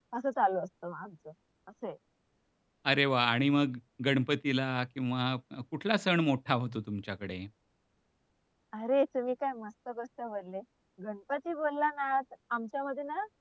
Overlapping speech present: No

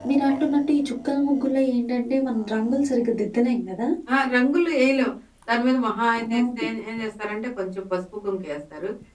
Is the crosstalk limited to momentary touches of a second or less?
Yes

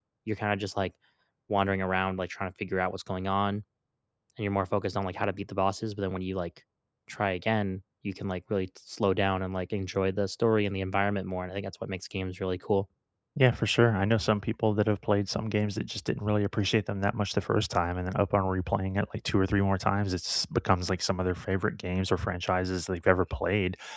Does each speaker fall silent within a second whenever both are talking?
Yes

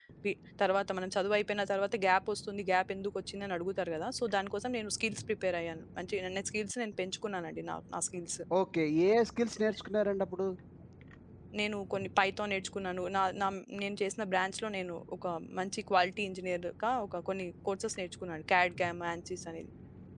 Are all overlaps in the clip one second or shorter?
Yes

